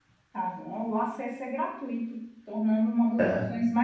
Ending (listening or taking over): listening